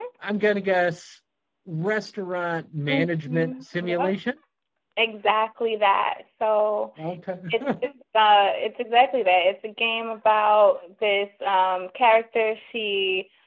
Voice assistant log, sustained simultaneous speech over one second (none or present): present